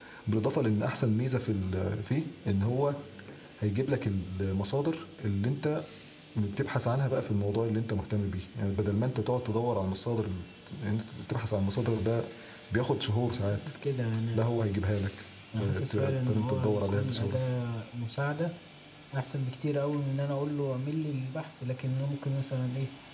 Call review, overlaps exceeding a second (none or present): present